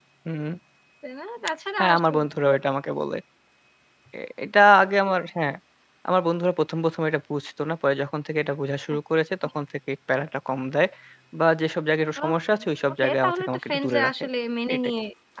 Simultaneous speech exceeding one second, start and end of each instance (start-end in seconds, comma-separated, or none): 13.0-14.2